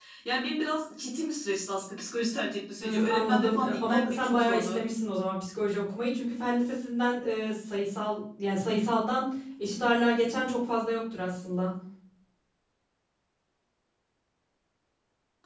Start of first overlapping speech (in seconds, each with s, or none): 2.8 s